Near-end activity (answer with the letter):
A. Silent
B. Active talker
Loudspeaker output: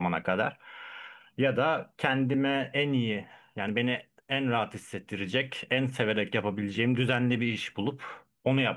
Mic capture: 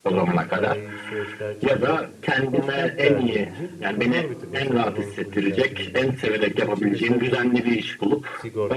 B